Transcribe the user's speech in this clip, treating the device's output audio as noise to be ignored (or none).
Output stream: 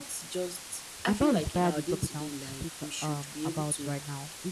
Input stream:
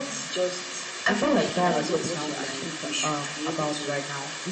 it depends on what you're actually doing.